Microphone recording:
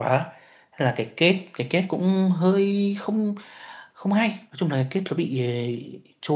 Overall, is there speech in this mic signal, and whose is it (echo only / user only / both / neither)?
user only